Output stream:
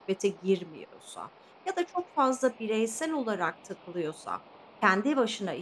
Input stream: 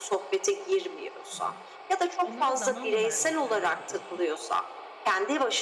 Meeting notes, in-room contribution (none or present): present